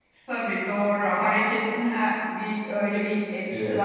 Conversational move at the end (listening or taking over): taking over